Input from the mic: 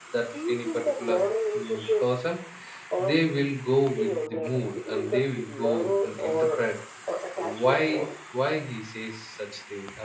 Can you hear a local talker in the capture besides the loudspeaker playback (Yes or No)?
Yes